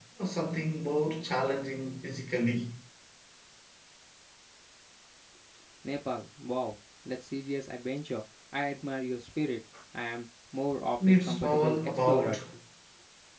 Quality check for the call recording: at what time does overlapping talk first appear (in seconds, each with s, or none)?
11.0 s